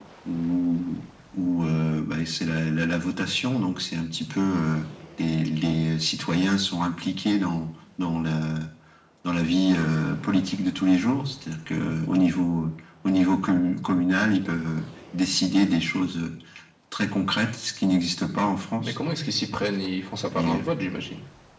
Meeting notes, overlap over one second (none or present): none